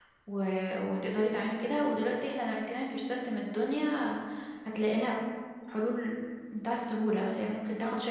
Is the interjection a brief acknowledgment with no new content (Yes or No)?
Yes